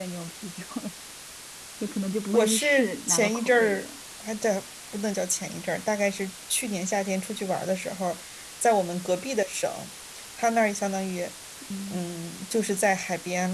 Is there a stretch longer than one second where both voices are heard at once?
Yes, from 2.3 s

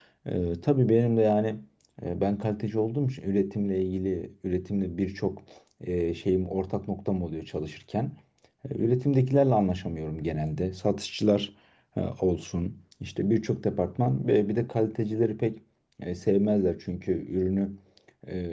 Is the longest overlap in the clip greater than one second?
No

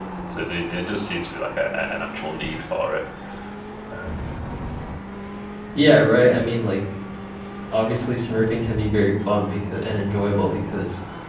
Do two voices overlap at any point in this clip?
No

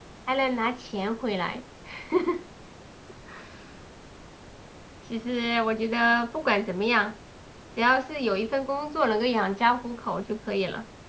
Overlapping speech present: No

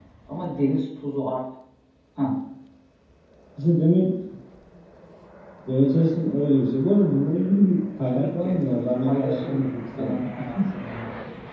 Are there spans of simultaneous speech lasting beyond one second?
Yes, from 8.1 s

